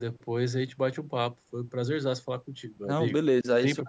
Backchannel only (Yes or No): No